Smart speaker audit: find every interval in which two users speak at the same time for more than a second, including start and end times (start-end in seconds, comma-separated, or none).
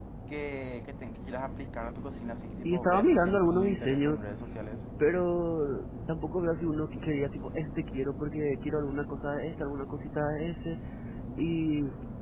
2.6-4.2